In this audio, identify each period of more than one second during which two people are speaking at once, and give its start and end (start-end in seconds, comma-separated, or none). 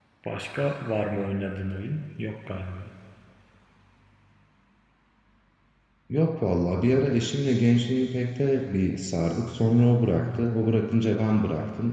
none